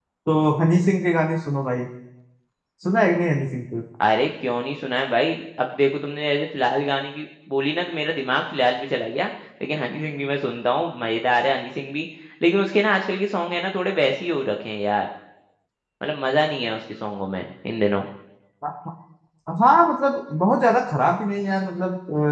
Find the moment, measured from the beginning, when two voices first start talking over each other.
none

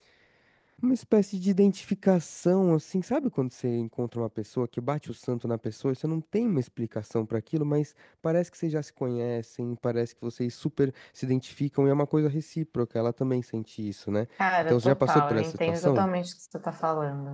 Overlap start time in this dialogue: 14.6 s

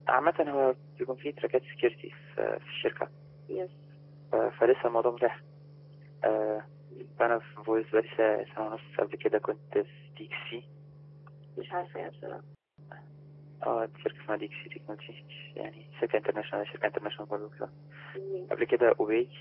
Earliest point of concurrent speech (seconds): none

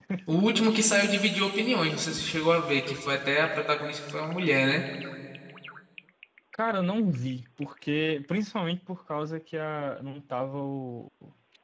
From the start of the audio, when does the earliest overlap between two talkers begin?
none

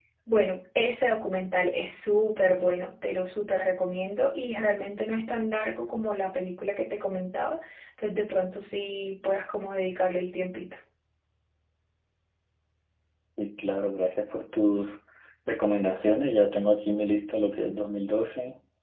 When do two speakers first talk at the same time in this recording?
none

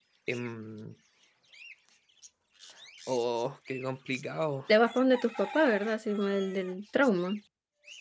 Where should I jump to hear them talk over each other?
none

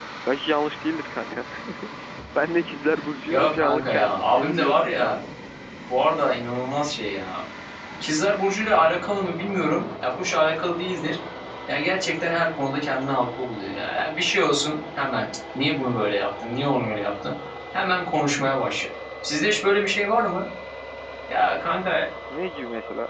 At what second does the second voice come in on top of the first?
3.3 s

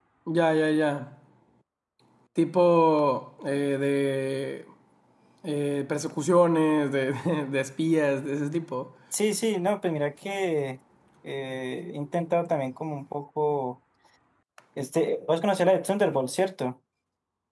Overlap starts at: none

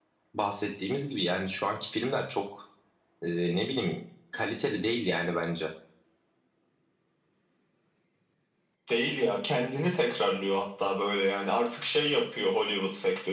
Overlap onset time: none

